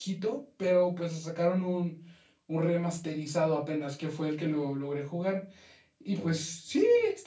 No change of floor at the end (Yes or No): Yes